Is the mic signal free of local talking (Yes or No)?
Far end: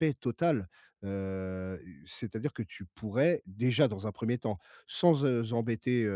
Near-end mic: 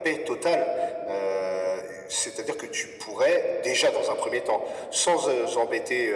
Yes